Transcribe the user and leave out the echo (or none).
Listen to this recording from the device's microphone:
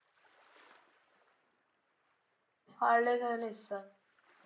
హాలిడేస్ అని ఇస్